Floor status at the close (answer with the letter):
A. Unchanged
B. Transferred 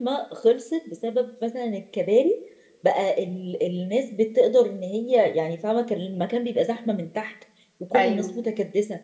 A